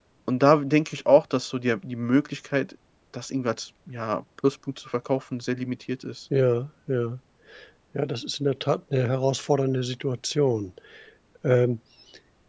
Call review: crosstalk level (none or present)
none